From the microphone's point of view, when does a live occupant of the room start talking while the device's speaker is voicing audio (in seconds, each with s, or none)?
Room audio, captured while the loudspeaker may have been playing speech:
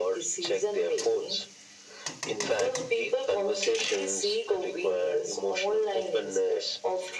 none